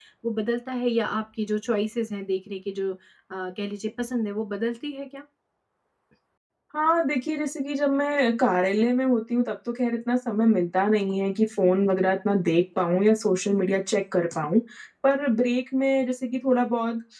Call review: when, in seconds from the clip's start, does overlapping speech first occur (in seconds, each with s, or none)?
none